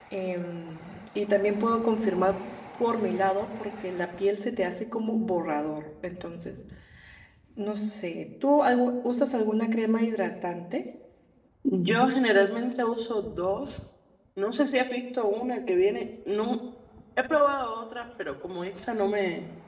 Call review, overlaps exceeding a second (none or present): none